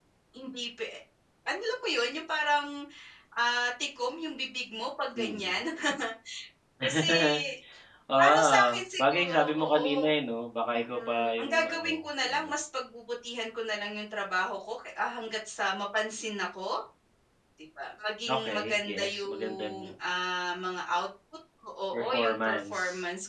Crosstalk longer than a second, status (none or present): present